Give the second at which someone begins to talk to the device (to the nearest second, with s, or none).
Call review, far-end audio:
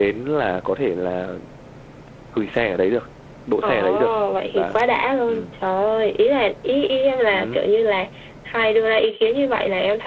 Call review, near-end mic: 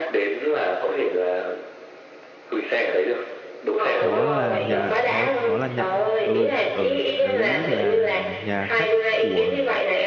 4 s